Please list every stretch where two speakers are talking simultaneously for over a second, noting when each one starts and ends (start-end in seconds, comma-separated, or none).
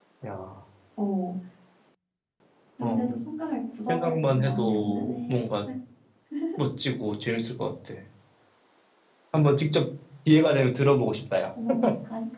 3.9-5.4